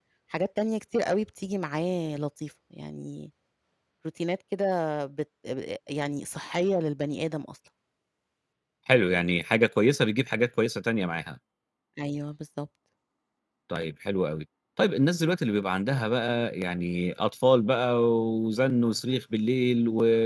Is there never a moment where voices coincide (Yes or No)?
Yes